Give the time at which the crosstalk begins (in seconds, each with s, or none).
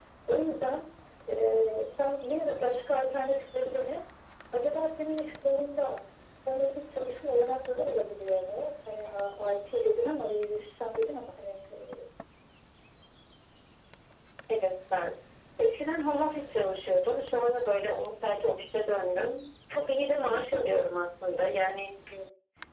none